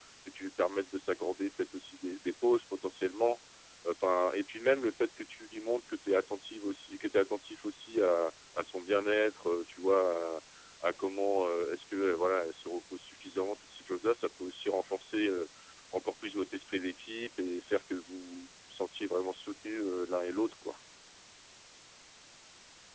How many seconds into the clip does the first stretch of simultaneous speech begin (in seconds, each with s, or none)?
none